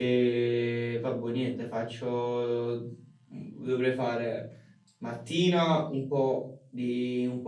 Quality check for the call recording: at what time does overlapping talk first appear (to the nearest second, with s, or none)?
none